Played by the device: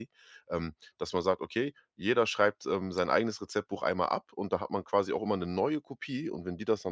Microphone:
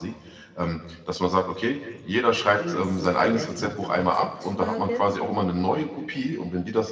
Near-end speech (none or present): present